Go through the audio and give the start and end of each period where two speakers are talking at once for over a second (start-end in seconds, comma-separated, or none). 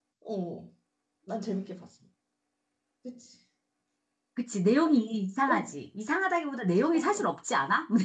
none